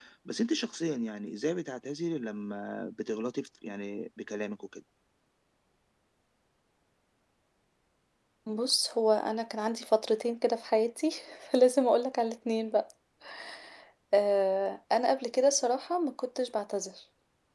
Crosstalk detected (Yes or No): No